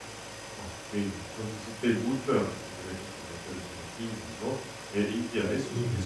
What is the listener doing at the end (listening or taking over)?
listening